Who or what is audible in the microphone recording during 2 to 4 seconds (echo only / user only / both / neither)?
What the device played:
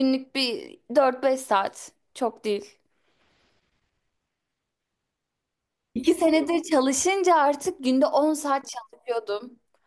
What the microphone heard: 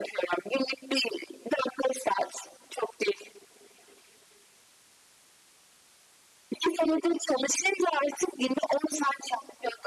echo only